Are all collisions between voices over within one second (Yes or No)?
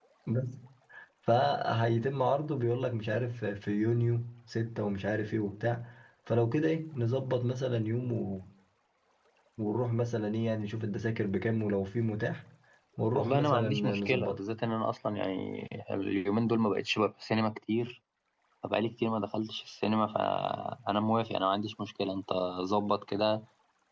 No